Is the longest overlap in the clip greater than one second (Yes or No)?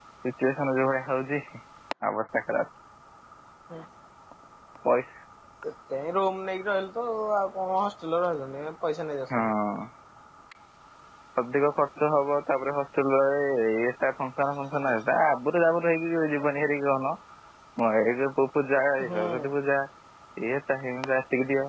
No